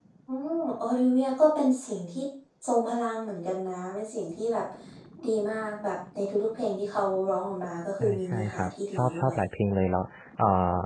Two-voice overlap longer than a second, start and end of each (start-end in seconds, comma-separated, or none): 8.0-9.4